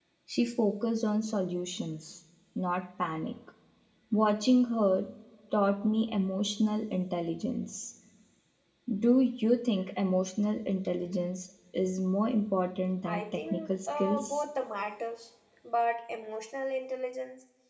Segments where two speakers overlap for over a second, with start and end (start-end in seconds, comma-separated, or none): 13.0-14.4